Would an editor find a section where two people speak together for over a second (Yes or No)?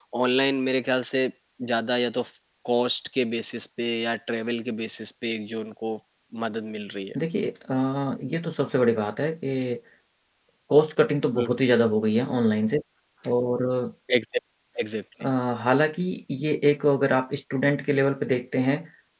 No